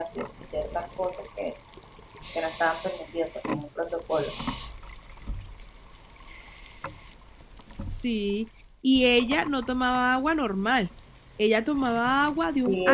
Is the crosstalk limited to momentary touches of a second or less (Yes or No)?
Yes